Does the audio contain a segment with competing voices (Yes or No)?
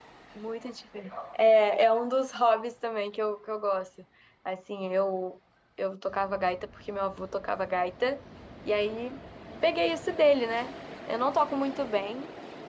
No